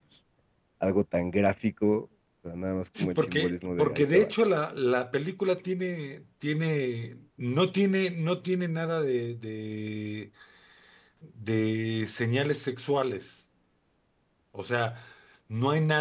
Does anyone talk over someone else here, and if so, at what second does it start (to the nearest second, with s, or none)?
3 s